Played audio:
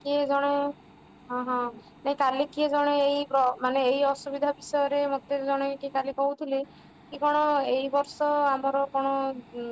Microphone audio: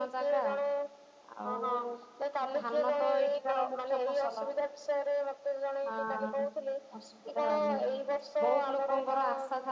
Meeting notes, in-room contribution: present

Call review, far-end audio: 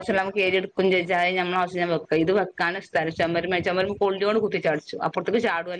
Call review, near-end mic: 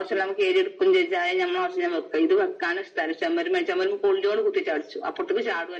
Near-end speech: none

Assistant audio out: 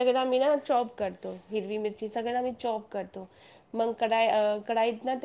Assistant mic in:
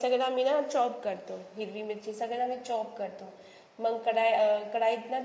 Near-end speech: none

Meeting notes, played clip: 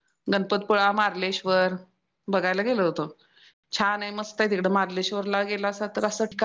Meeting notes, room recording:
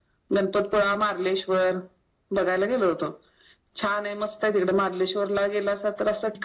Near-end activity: none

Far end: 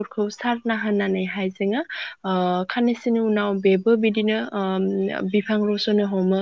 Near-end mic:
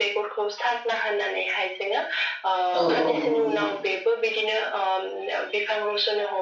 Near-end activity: present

